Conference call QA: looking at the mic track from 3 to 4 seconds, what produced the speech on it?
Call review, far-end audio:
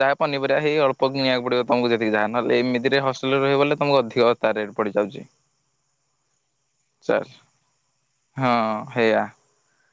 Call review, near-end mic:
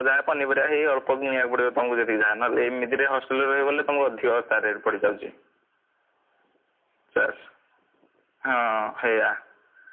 echo only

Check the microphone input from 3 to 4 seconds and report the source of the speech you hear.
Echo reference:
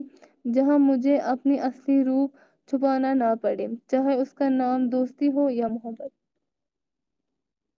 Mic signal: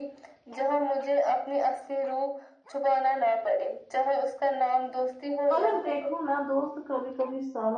echo only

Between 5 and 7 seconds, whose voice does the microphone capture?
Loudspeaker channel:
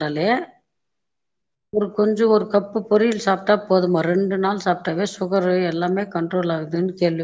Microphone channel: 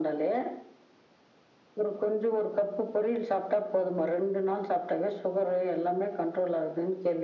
echo only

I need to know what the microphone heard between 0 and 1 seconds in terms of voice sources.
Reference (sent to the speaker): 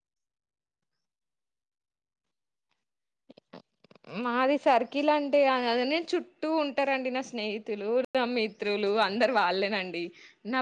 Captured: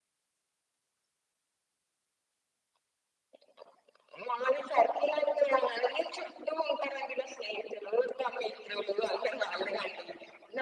neither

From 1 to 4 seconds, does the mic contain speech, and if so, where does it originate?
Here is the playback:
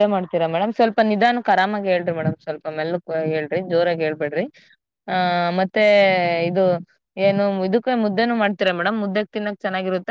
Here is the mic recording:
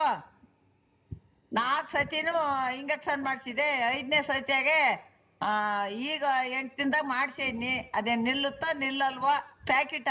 user only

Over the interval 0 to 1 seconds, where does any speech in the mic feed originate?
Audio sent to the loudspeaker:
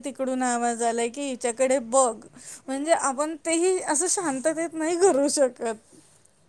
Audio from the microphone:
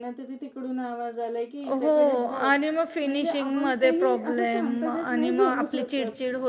echo only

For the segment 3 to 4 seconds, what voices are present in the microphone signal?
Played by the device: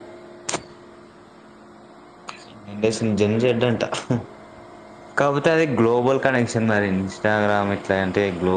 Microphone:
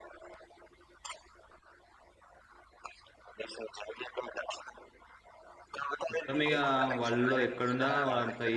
echo only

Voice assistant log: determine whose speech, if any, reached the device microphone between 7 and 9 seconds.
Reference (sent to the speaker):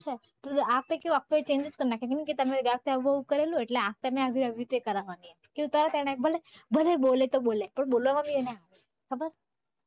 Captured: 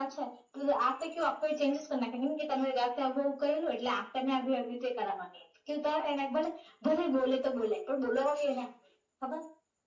echo only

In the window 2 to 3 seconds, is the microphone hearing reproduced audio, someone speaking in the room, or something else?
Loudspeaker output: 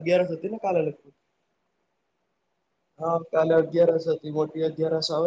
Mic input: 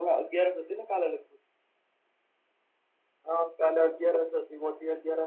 neither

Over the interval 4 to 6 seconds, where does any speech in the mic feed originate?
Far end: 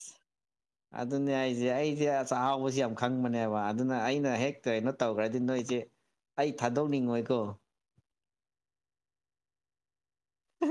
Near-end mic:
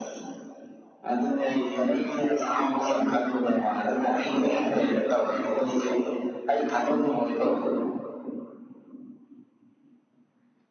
echo only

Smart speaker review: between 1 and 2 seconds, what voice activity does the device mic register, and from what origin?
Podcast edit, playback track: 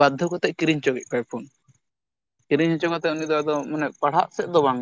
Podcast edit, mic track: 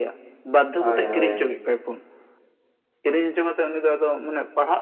both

